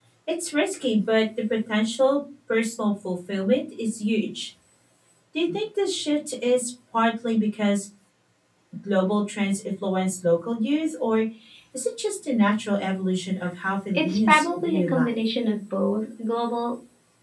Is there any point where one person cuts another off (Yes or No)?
Yes